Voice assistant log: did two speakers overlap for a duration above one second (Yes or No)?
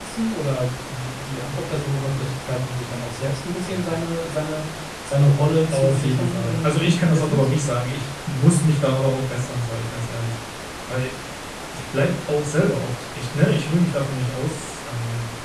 Yes